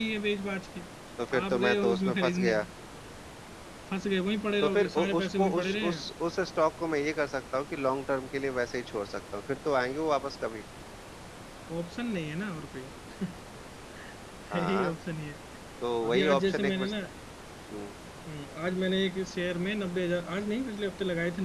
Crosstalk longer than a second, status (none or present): present